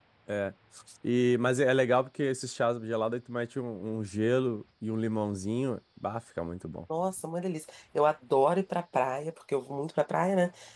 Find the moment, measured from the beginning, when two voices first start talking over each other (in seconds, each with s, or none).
none